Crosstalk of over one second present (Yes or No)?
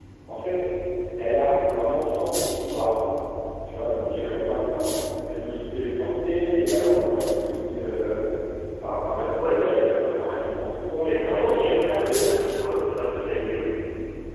Yes